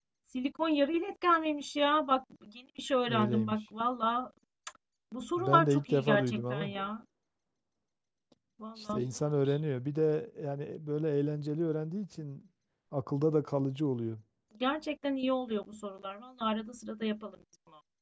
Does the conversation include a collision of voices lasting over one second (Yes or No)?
Yes